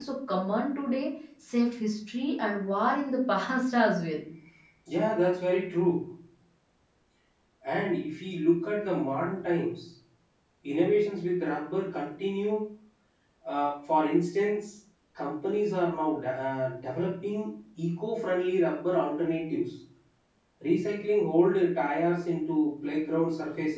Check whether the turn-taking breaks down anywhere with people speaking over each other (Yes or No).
No